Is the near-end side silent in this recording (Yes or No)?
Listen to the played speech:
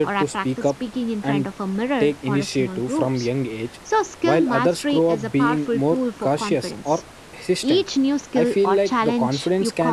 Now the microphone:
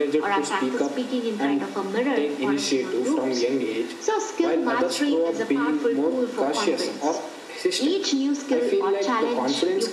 Yes